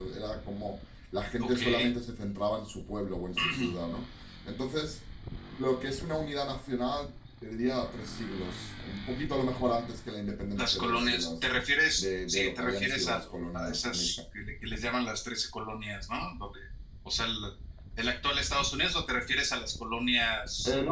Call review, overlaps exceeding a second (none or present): present